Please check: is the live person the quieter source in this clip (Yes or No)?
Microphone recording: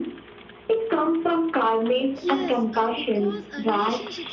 Yes